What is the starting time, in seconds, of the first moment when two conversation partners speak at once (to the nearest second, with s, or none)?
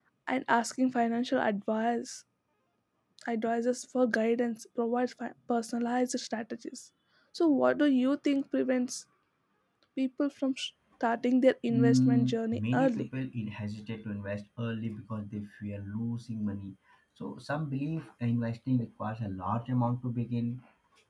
12 s